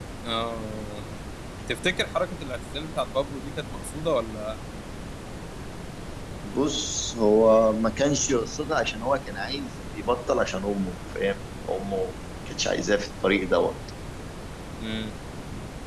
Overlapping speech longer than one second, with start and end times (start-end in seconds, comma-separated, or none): none